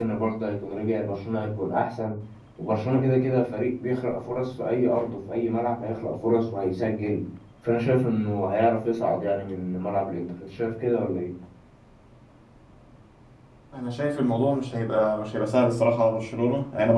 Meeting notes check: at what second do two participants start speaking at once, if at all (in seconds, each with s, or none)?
none